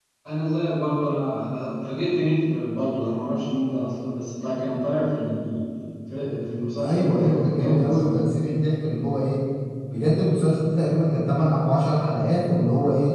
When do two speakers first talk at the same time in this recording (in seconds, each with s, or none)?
6.7 s